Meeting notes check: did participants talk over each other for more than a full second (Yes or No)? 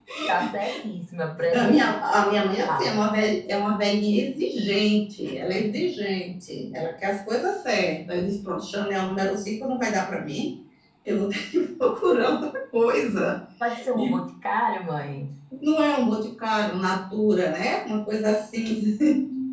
Yes